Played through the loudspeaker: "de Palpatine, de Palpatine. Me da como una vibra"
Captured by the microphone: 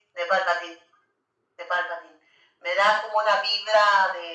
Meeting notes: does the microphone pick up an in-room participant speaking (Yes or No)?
No